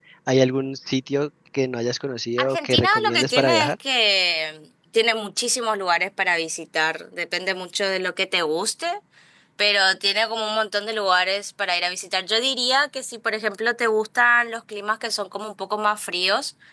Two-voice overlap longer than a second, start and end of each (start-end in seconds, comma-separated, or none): 2.4-3.7